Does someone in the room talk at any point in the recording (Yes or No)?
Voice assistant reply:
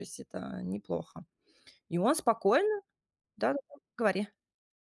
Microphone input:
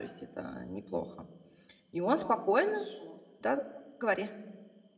Yes